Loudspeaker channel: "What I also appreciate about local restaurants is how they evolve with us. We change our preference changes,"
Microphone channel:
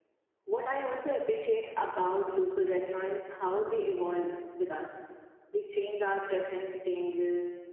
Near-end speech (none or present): none